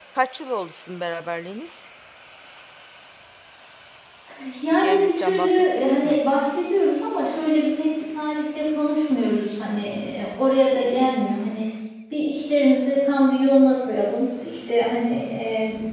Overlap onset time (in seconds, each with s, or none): 4.7 s